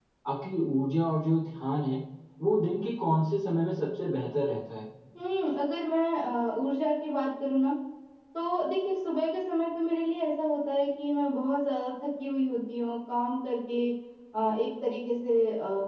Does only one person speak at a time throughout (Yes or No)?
Yes